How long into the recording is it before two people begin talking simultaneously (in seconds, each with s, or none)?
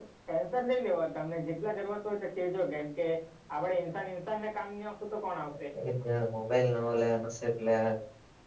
none